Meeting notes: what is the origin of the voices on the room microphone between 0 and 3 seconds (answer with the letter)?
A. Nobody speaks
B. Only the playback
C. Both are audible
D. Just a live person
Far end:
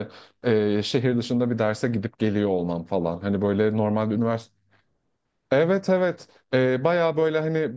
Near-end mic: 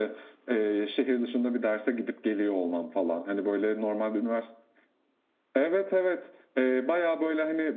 B